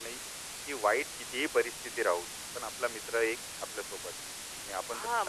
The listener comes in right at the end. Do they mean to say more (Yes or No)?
Yes